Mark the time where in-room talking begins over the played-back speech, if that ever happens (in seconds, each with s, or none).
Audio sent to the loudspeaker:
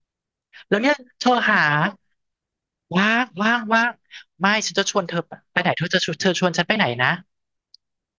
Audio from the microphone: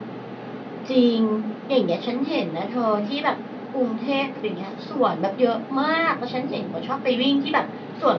0.9 s